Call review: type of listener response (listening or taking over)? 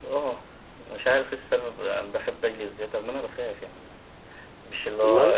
listening